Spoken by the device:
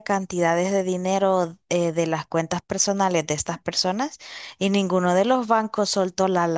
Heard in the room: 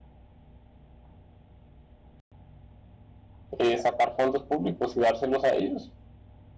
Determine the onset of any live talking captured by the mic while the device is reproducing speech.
3.6 s

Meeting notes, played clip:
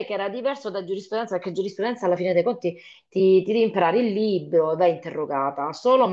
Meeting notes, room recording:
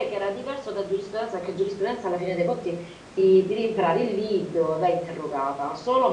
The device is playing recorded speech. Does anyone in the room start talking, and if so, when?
none

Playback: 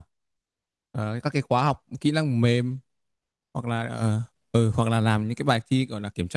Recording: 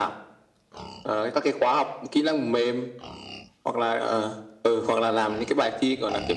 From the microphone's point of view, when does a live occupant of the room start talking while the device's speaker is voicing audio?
none

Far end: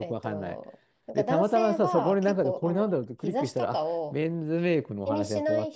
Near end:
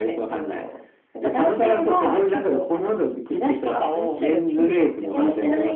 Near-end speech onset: 3.9 s

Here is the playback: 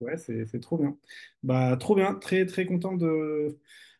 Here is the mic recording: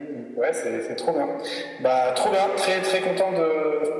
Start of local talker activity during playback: none

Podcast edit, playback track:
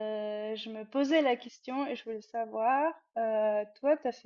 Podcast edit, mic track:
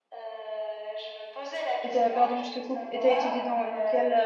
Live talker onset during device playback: 1.8 s

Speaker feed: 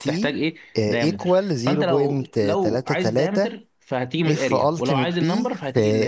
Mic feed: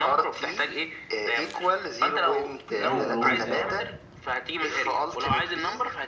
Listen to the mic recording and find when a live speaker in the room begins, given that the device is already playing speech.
2.7 s

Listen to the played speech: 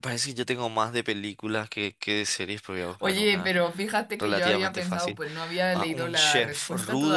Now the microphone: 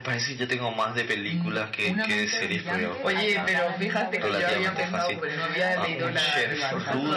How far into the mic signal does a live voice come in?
1.3 s

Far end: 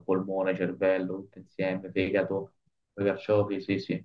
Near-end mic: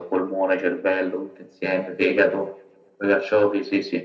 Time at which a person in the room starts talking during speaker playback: none

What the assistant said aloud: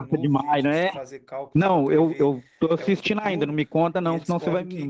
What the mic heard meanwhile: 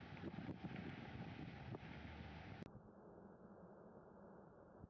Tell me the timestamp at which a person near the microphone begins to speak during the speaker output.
none

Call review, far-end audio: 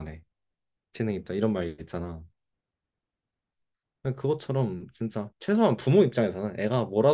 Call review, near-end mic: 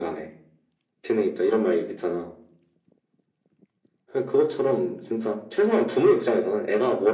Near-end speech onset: none

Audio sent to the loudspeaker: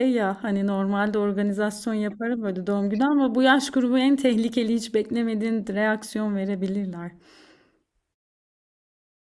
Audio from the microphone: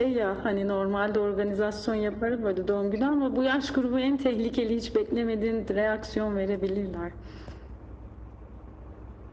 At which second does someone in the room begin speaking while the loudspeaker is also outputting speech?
none

